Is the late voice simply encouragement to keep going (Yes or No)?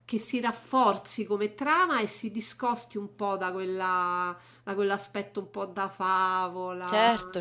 No